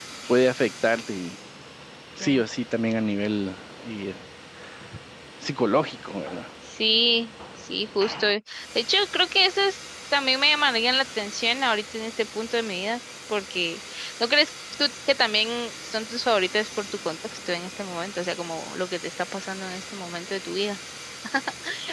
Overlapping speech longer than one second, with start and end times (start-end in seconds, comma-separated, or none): none